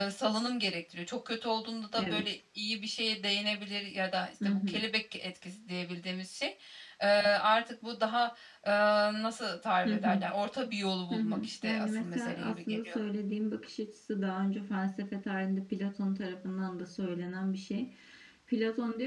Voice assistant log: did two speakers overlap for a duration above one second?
Yes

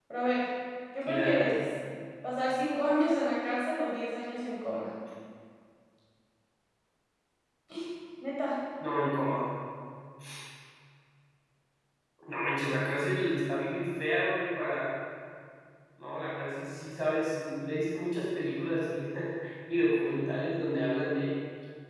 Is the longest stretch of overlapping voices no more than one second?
Yes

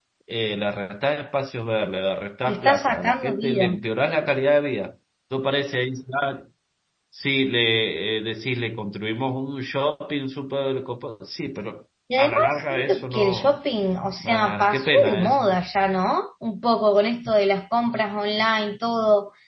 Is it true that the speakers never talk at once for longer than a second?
No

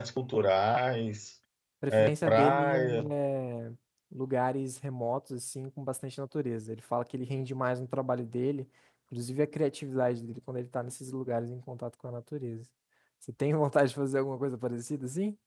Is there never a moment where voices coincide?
No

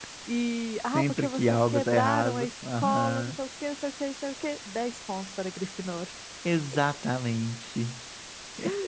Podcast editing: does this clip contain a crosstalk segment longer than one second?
Yes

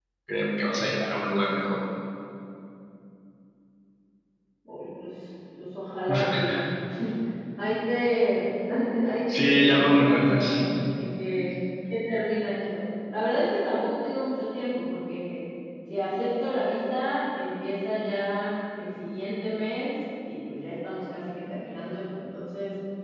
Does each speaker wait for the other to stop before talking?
No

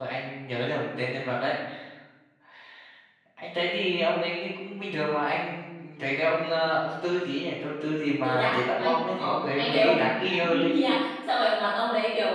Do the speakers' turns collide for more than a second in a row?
Yes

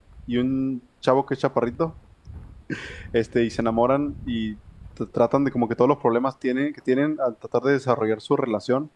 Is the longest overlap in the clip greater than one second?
No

